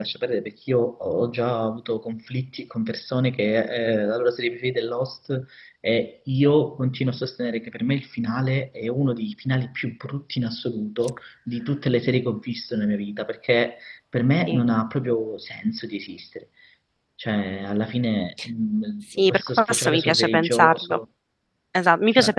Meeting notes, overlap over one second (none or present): present